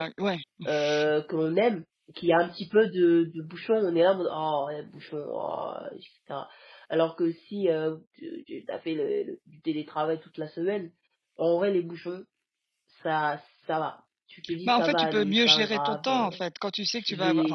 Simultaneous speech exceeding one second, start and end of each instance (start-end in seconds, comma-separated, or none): 14.7-16.4